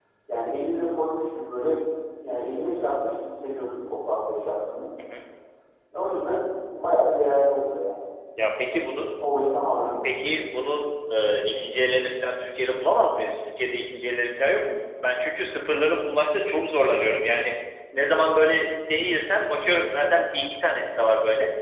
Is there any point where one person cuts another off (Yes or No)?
No